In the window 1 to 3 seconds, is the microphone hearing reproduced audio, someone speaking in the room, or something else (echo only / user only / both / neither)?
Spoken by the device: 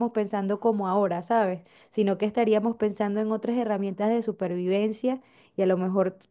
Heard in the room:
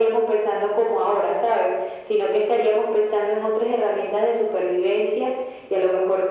echo only